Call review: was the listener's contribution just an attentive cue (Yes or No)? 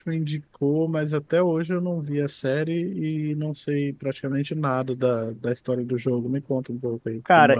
No